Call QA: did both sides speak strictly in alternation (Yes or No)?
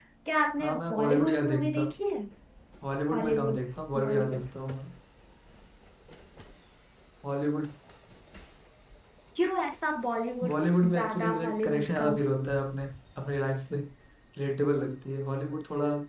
No